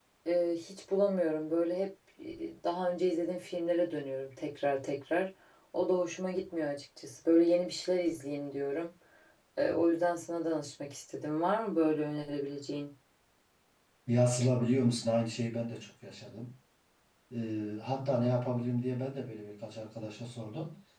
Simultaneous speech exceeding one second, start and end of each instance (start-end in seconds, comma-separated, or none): none